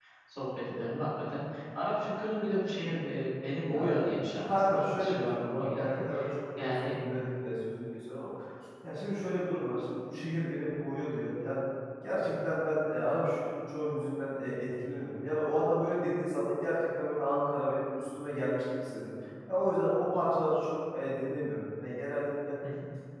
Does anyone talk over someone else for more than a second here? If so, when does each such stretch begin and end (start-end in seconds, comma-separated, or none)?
4.4-6.0